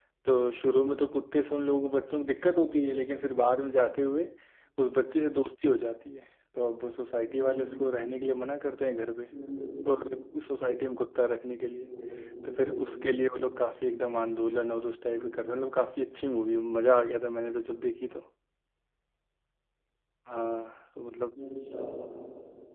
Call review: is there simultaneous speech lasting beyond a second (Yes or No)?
No